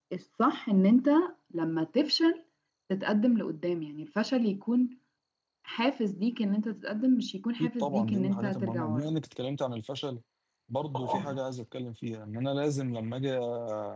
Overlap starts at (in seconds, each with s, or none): 7.6 s